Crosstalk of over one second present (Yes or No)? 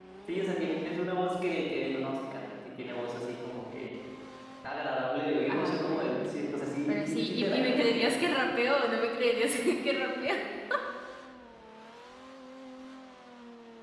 Yes